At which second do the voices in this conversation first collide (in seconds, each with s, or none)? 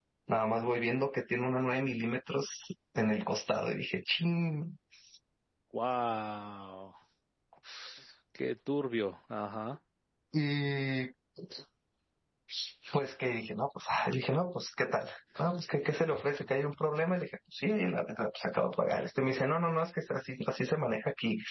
none